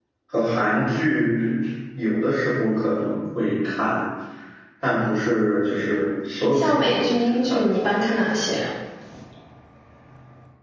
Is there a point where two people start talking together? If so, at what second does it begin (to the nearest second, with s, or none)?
7 s